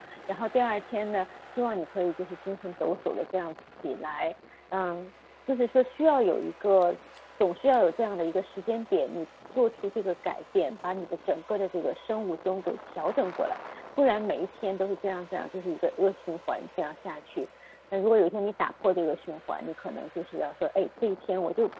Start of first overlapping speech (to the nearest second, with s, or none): none